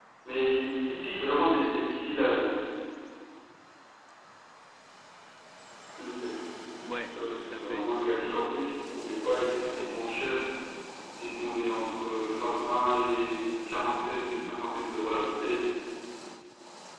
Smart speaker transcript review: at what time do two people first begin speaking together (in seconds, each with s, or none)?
7.0 s